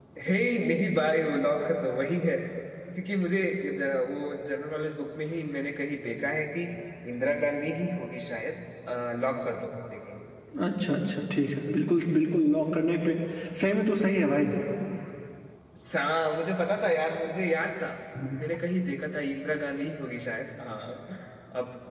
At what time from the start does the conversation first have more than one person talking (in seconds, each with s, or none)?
none